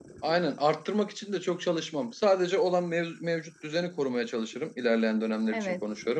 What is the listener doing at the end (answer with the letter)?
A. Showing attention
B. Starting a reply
A